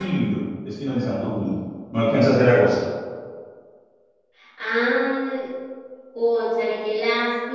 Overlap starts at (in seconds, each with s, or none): none